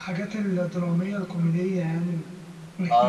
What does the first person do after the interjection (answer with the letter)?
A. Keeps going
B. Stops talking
B